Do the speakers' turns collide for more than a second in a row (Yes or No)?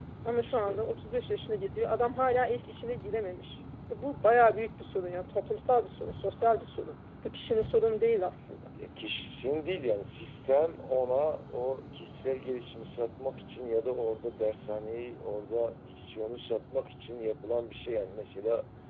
No